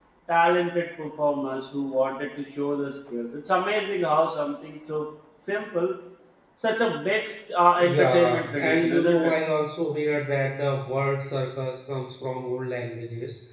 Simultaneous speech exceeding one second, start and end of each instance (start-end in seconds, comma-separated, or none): 8.0-9.3